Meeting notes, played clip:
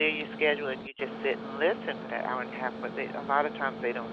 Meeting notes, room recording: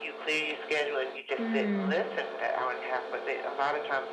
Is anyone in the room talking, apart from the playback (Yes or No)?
Yes